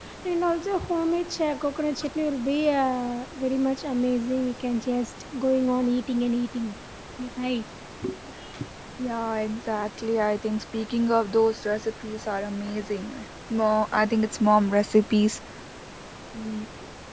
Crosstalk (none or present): none